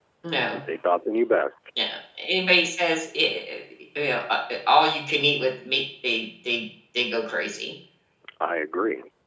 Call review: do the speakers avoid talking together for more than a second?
Yes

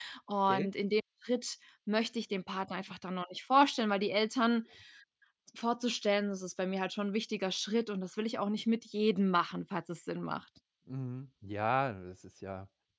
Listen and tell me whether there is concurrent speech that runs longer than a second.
No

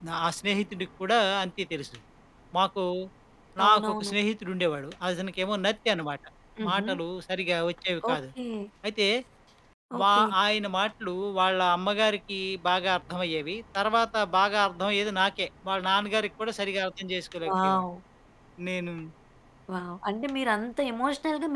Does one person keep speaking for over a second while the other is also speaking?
No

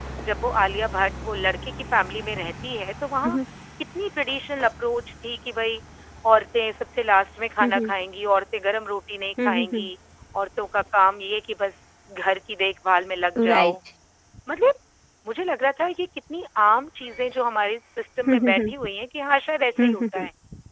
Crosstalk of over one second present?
No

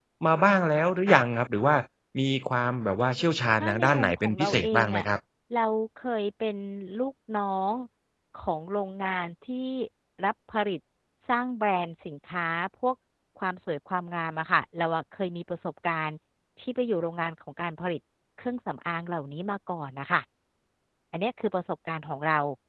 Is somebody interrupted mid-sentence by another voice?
Yes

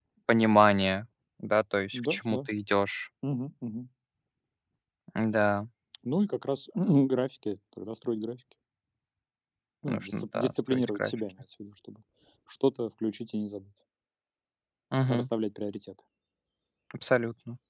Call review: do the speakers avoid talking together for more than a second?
No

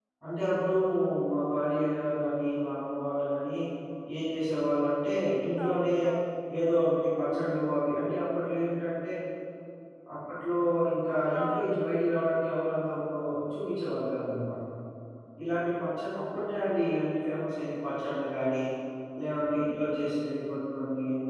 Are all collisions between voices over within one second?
Yes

